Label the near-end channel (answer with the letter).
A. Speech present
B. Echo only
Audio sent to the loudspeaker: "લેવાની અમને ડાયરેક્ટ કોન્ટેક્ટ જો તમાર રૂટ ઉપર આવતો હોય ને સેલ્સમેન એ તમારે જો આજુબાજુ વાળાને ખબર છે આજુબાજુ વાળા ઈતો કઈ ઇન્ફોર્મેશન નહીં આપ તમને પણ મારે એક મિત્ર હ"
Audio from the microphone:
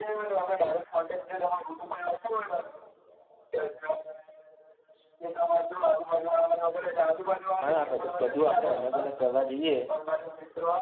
A